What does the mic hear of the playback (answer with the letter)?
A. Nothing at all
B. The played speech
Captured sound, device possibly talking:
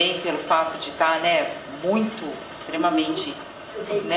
B